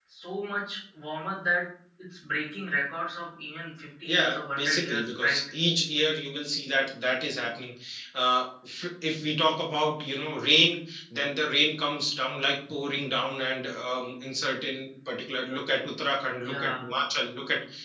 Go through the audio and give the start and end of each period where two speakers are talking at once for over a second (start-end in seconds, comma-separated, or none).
4.0-5.4